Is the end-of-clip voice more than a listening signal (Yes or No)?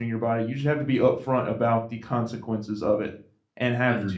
No